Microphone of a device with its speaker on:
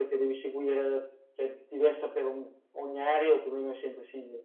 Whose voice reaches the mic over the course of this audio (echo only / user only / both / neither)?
echo only